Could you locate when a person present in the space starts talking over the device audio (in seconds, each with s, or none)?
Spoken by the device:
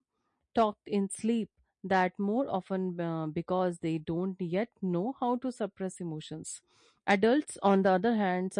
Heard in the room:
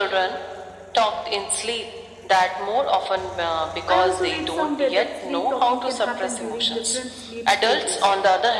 3.9 s